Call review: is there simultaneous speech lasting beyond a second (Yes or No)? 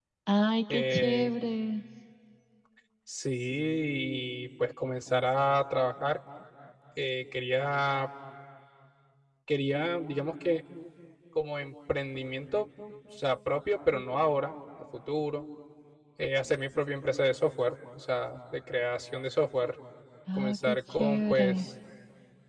Yes